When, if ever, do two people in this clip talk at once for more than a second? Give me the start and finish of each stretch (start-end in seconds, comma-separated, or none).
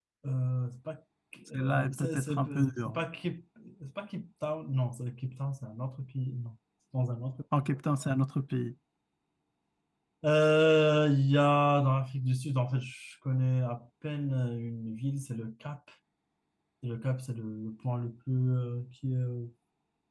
1.5-3.0